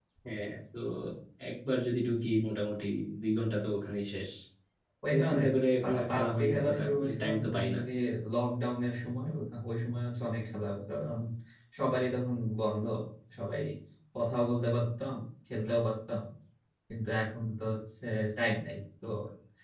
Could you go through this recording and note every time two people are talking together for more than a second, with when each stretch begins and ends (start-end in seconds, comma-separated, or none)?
6.1-7.8